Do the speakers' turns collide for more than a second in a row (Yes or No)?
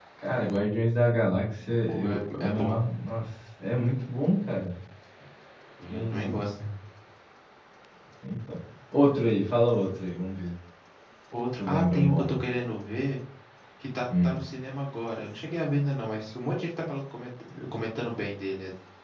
Yes